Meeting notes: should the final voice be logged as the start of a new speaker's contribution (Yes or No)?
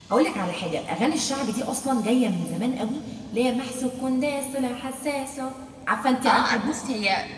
Yes